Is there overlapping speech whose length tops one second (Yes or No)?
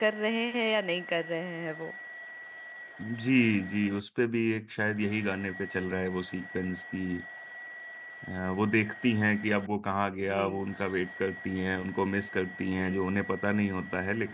No